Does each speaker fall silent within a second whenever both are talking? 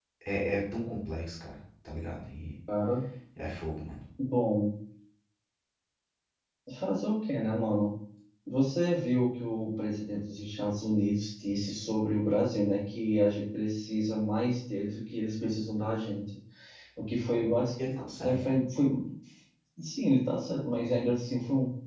Yes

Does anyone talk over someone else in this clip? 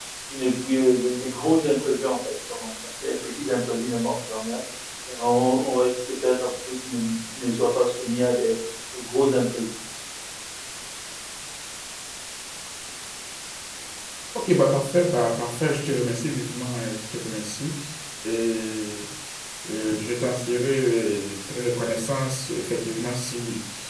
No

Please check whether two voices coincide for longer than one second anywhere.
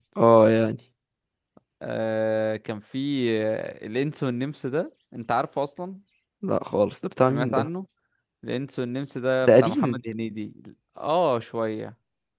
No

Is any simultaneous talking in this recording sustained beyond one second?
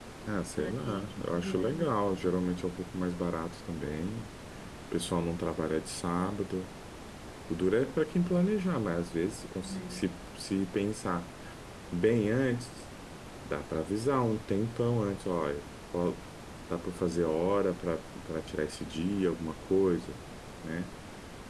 Yes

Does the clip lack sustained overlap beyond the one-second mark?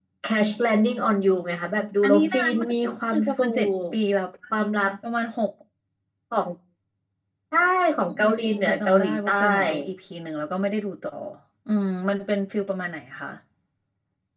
No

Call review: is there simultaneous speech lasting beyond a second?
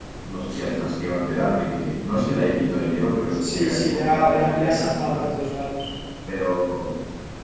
Yes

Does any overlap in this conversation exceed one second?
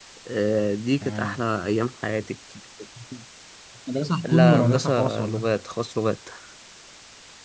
Yes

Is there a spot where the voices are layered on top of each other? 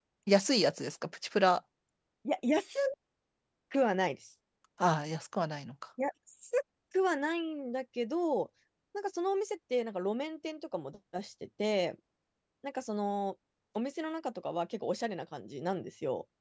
No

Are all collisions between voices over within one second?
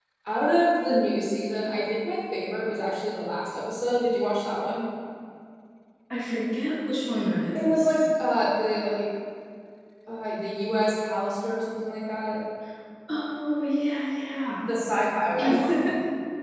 Yes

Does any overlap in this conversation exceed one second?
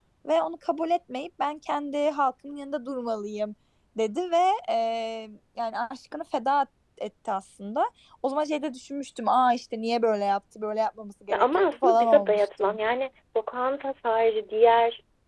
Yes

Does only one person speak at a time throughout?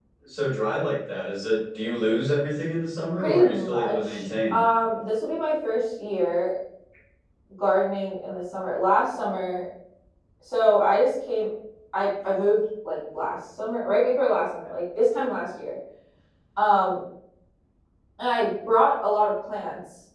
No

